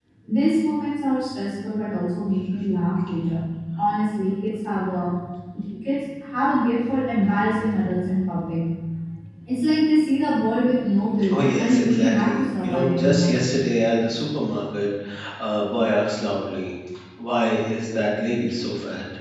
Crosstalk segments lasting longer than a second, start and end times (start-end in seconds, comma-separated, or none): 11.4-13.3